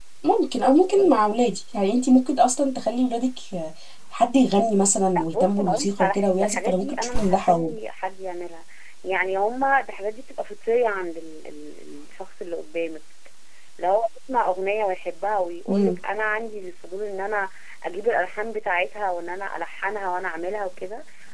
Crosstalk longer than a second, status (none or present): present